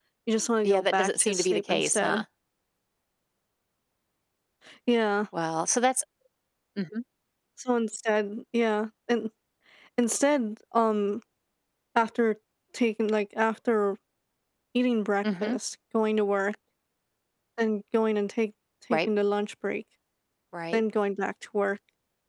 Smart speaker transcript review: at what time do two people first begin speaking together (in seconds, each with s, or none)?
0.6 s